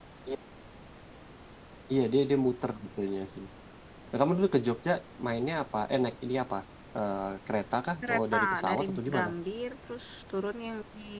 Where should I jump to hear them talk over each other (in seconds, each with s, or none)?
8.0 s